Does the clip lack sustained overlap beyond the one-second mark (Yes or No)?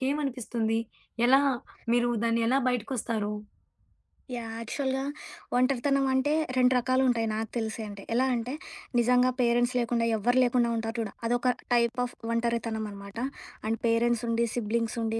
Yes